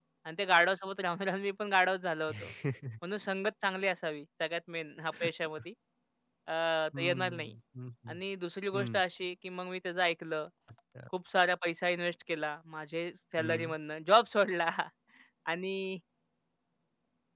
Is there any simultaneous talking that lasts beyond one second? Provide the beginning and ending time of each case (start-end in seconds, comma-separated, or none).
none